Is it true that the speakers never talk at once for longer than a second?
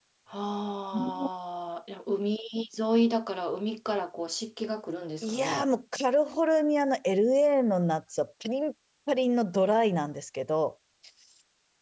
Yes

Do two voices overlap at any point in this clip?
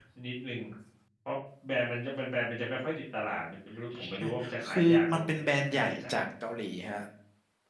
Yes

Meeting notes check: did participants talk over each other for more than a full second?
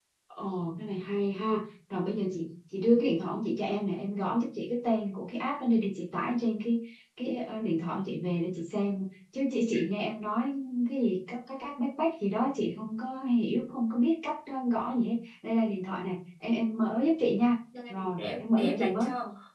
Yes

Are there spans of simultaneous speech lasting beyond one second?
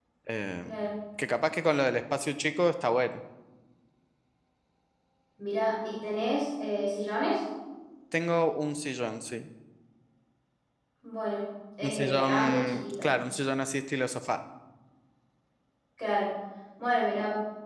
Yes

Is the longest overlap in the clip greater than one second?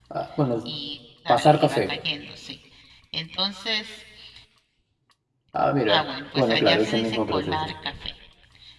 Yes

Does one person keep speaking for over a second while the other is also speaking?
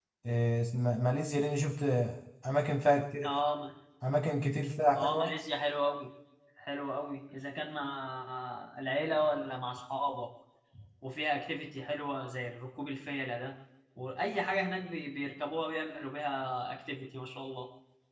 No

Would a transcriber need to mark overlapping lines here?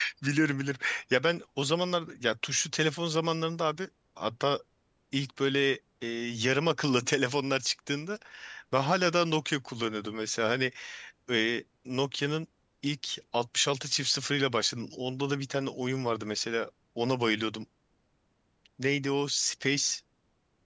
No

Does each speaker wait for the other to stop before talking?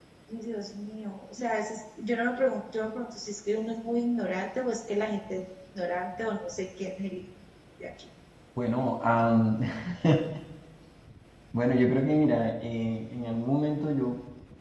Yes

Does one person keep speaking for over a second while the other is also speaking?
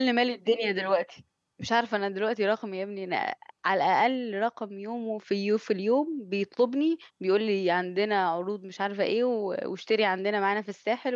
No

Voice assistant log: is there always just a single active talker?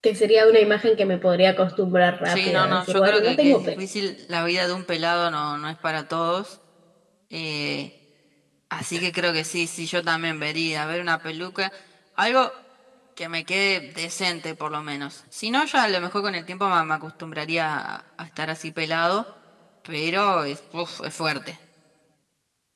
No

